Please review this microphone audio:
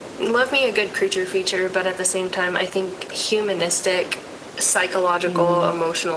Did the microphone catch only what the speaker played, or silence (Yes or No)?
No